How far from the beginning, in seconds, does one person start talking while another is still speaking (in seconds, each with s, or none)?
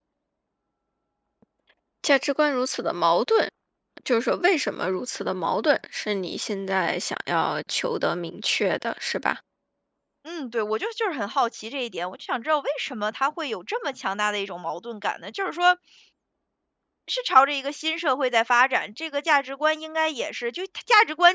none